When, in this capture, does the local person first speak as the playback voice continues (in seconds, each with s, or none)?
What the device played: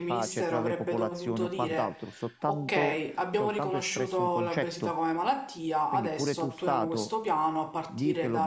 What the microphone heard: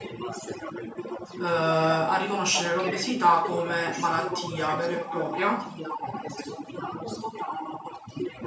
1.4 s